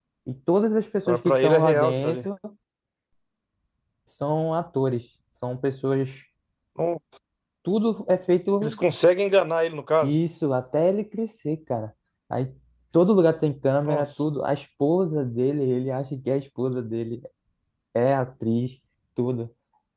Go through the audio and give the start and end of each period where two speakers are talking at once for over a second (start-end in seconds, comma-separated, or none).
1.1-2.3